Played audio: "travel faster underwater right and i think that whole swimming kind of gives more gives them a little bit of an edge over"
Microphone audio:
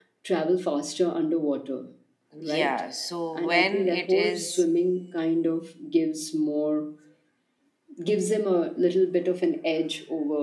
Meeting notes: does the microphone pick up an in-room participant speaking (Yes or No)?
Yes